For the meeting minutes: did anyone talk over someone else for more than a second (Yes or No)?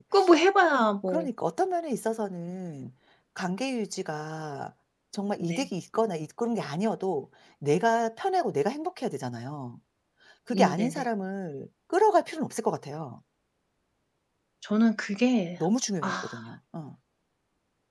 No